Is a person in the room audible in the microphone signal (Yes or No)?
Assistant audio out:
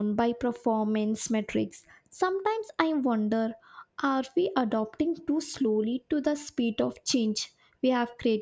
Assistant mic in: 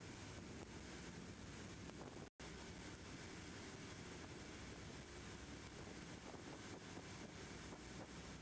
No